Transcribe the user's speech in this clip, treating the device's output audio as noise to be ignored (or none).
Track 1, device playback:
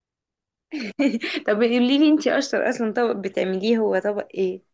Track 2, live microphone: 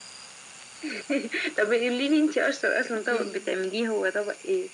اوكي